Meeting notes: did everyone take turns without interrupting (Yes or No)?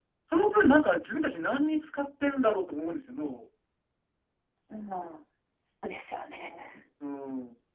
Yes